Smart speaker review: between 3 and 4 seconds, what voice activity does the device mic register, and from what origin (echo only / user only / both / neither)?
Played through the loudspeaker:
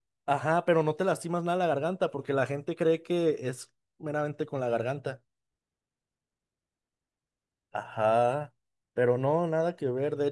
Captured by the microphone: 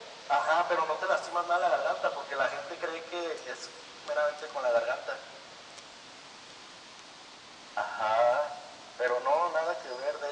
echo only